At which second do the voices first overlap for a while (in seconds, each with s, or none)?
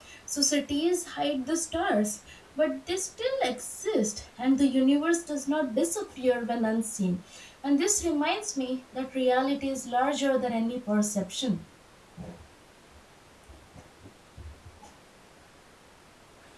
none